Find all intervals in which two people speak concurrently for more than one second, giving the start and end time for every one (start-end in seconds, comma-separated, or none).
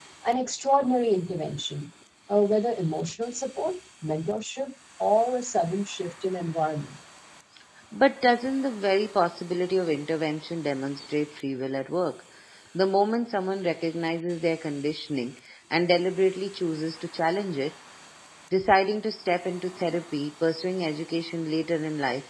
none